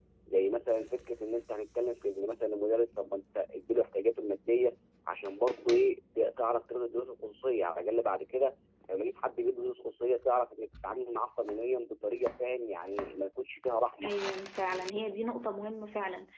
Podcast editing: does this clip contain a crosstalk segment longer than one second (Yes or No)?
No